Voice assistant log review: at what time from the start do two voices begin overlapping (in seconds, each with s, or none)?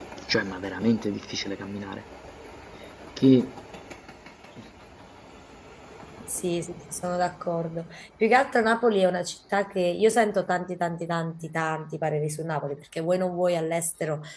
none